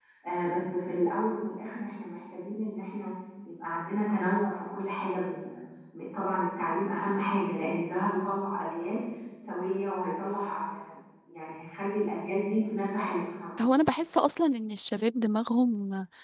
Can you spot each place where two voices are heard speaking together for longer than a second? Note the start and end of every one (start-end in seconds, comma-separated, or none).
none